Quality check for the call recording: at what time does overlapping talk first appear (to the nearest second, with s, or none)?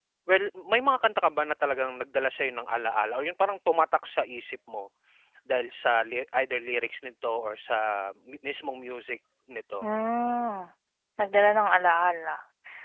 none